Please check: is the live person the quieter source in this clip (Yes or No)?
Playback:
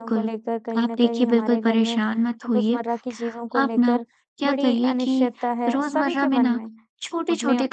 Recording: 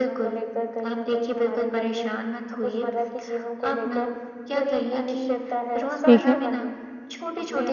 No